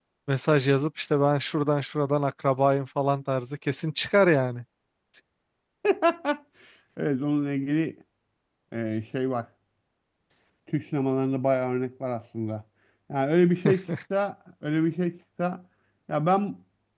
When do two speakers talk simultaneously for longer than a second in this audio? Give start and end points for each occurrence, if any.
none

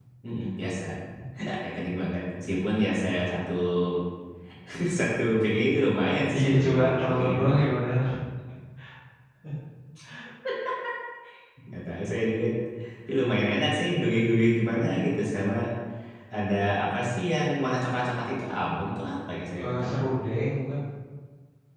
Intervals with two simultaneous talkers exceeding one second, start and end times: 6.3-7.6

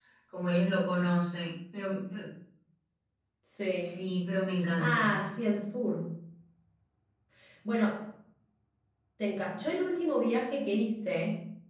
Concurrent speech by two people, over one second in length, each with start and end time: none

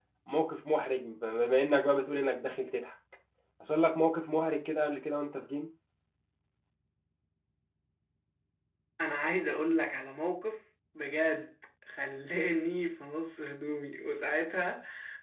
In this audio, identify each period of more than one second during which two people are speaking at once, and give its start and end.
none

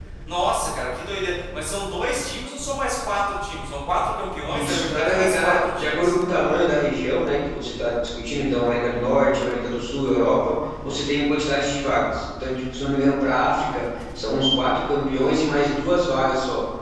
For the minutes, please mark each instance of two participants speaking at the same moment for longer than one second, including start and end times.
4.5-6.1

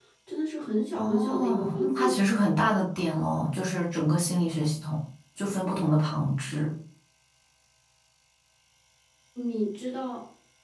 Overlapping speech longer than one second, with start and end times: 0.9-2.2

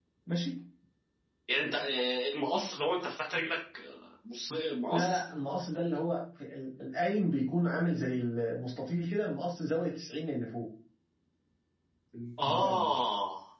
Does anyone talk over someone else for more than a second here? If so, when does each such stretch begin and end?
none

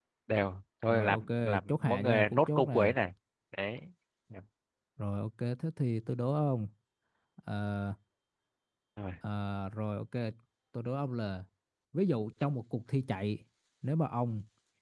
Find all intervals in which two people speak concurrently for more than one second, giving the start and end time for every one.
0.9-2.9

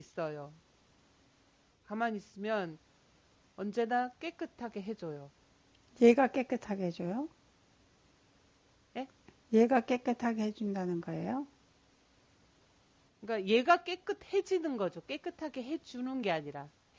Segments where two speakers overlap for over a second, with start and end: none

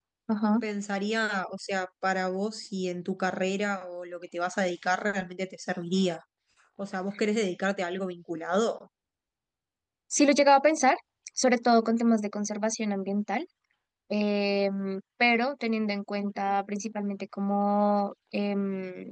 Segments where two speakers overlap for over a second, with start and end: none

